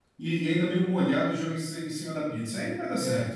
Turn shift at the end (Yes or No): Yes